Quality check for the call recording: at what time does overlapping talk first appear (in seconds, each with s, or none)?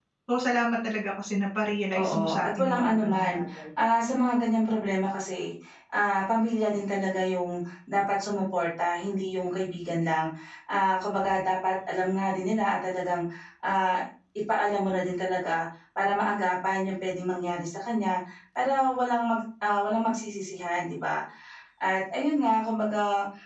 1.9 s